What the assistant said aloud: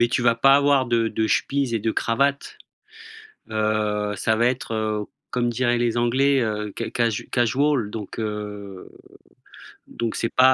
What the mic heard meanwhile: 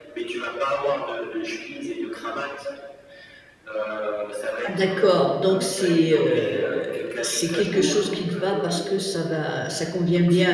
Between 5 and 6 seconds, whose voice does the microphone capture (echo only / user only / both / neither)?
both